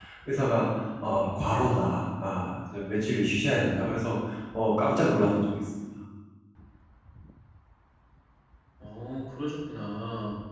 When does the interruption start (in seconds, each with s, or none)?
none